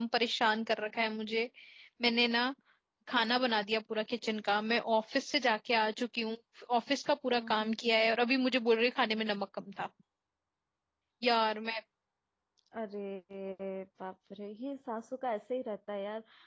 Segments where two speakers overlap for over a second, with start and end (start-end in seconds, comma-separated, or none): none